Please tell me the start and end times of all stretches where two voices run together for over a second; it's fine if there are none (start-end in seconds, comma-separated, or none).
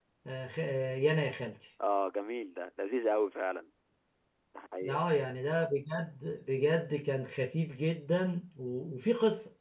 none